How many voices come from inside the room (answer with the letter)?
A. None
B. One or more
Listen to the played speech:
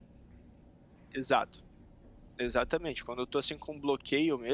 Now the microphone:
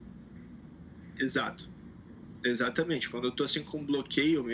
A